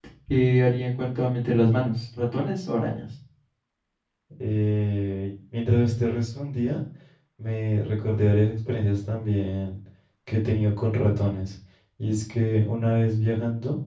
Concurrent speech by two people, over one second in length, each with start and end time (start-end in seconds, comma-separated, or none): none